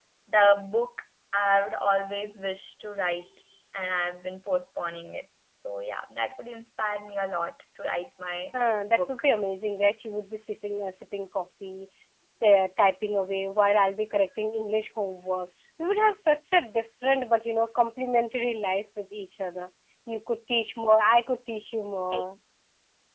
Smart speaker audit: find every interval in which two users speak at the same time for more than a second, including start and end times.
none

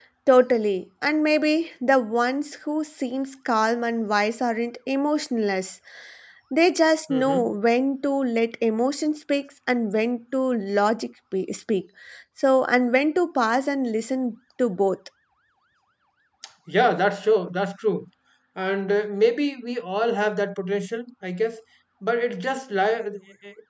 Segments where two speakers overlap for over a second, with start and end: none

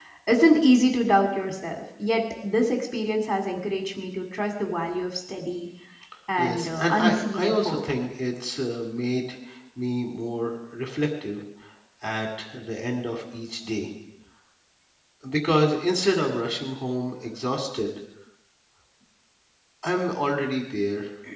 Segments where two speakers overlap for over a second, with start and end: 6.4-7.8

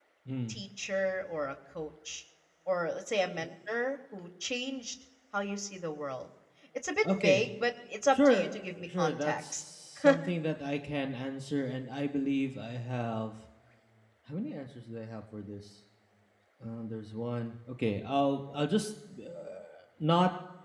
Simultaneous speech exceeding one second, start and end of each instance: 8.1-9.6

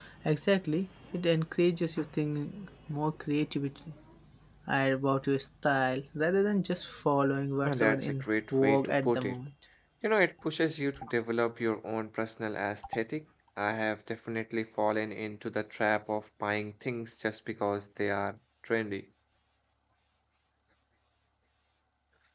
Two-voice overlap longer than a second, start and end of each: 7.6-9.4

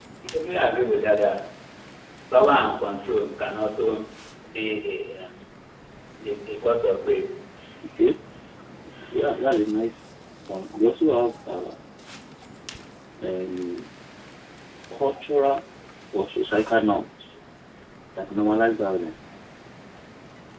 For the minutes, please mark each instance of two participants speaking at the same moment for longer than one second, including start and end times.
none

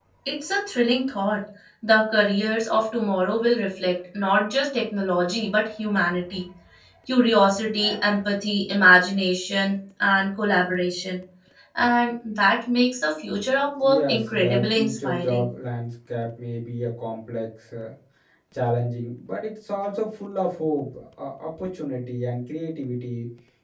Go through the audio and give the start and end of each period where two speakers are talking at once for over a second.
13.8-15.4

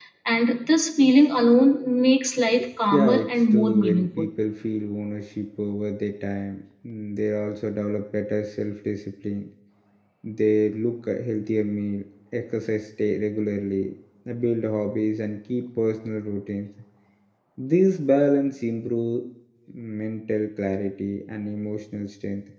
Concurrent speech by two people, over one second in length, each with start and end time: 3.0-4.3

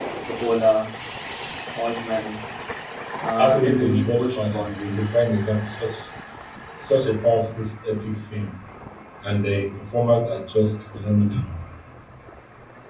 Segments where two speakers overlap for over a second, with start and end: 3.4-5.1

